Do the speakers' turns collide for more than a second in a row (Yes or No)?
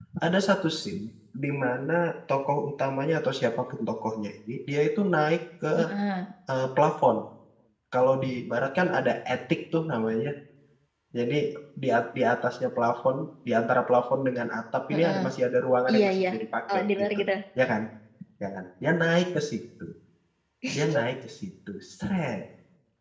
No